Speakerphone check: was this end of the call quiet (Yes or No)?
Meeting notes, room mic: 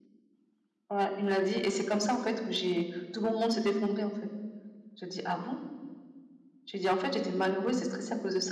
Yes